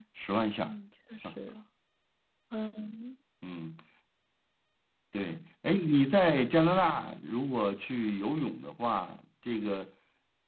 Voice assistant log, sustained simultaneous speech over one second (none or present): none